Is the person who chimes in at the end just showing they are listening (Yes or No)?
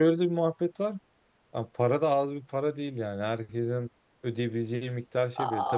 No